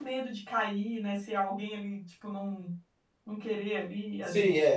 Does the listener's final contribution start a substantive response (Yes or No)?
Yes